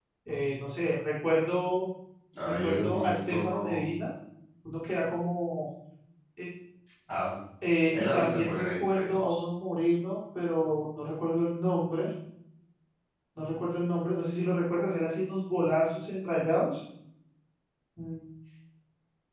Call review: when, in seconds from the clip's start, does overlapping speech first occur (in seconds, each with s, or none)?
2.5 s